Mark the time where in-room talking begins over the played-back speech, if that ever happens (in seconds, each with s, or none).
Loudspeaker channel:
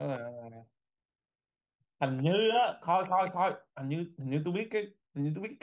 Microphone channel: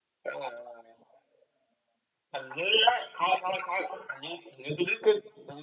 none